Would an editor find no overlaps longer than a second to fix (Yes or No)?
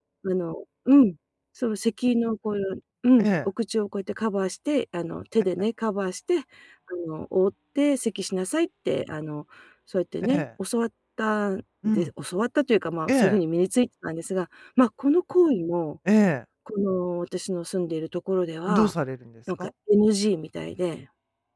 Yes